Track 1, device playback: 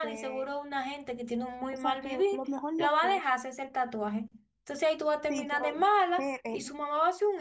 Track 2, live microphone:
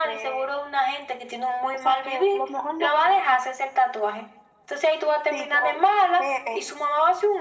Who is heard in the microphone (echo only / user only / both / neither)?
echo only